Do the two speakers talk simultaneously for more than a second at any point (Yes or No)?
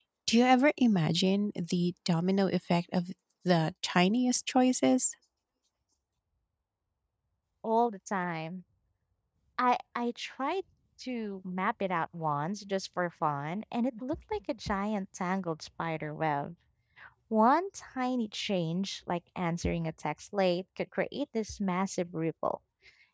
No